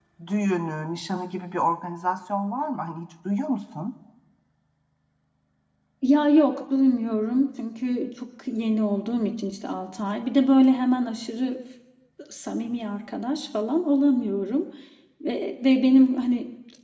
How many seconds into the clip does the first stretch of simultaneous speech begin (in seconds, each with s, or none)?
none